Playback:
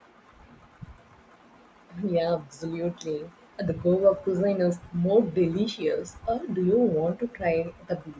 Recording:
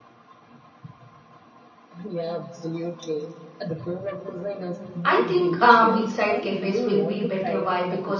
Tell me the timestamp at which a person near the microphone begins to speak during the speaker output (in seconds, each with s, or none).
5.0 s